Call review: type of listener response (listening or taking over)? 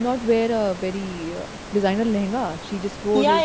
taking over